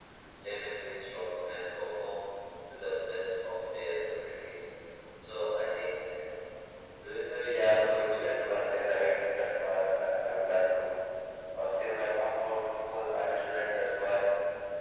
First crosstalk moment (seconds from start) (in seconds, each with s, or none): 7.5 s